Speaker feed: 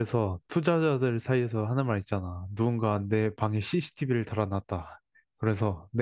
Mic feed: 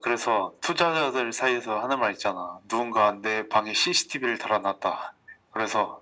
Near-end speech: none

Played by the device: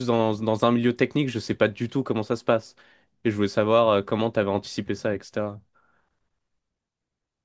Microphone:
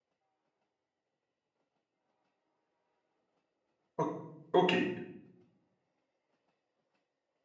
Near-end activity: present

